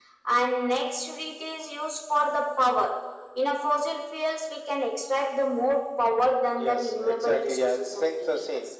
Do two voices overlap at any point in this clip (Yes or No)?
Yes